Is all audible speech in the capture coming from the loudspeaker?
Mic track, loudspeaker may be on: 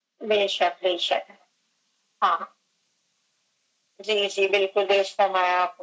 Yes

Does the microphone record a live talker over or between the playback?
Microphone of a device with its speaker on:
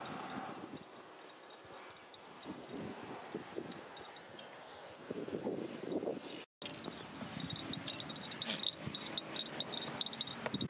No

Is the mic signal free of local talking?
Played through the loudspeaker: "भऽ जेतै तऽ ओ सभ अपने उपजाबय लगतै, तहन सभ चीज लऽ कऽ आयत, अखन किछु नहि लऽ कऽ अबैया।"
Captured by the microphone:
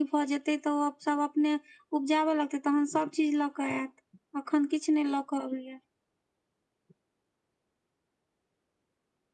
Yes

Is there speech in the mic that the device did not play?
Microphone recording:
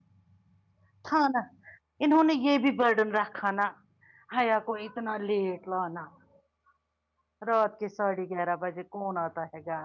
Yes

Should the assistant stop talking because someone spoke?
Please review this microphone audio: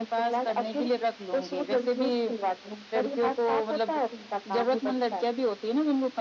No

